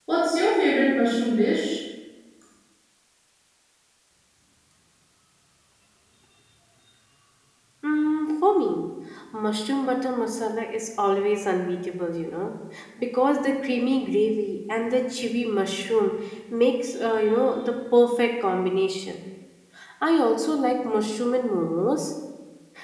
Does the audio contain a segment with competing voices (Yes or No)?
No